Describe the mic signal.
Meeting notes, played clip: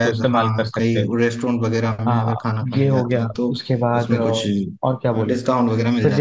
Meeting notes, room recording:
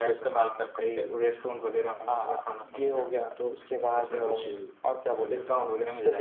echo only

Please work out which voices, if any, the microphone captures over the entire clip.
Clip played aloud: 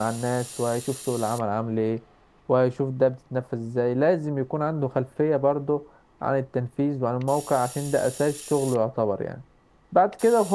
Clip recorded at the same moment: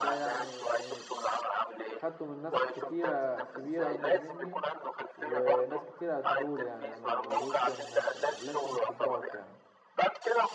both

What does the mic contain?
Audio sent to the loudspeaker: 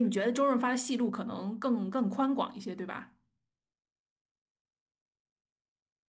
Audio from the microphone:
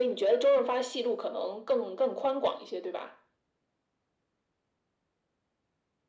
echo only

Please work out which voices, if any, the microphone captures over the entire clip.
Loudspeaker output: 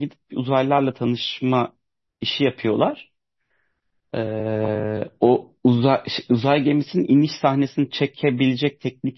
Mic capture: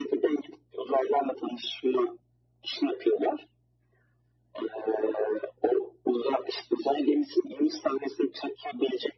echo only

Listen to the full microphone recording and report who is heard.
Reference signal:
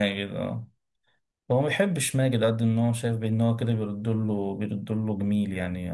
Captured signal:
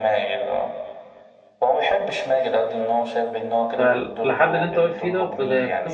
both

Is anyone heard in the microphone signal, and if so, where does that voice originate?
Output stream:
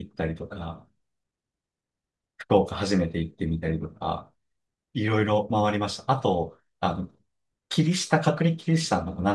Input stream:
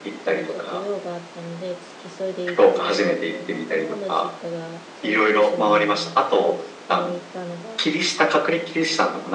both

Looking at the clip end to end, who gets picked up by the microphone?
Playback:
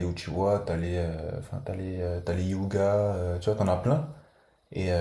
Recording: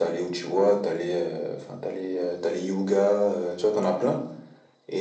echo only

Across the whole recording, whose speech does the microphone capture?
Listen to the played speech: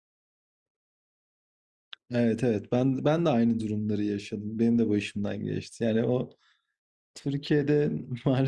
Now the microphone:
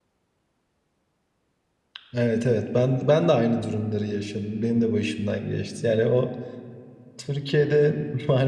echo only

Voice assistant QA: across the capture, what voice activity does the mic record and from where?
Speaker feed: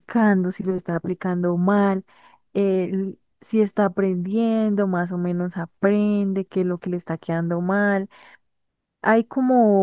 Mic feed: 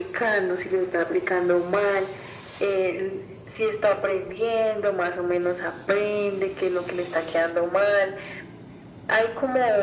echo only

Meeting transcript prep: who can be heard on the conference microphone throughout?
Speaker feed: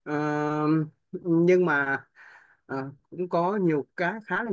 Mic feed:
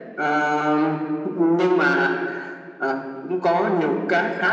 echo only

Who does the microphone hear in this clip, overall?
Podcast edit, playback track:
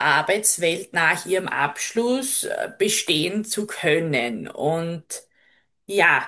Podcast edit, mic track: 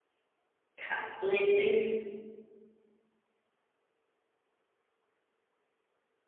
user only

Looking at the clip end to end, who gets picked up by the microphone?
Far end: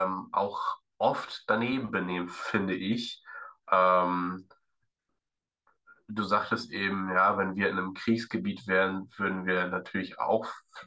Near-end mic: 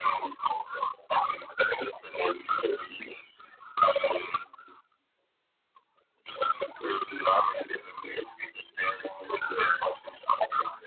echo only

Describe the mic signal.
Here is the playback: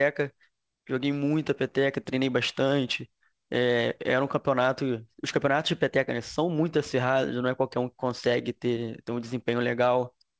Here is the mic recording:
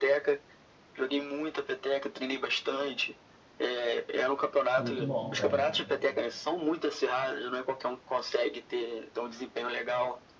both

